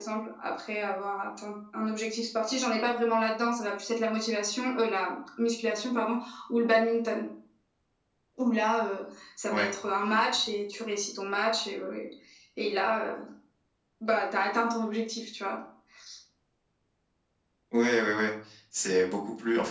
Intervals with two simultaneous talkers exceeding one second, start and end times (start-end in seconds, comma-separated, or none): none